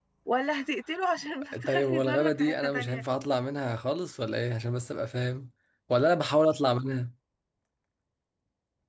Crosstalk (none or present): present